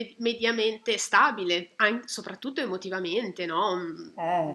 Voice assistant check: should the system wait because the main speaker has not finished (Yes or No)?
Yes